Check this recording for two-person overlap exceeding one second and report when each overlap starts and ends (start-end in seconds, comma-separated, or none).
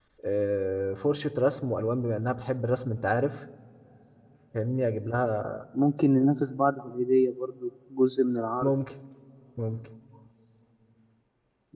none